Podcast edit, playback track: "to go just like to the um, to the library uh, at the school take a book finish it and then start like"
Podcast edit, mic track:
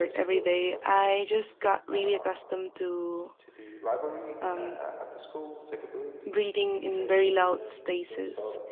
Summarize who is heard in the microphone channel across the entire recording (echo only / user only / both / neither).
both